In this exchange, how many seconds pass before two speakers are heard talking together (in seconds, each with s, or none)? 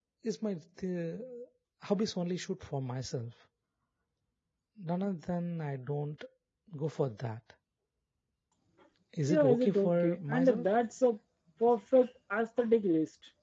9.3 s